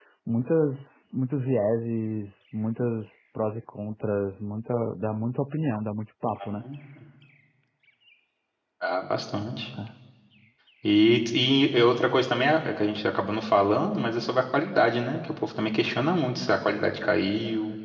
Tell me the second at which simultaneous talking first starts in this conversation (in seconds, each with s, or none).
none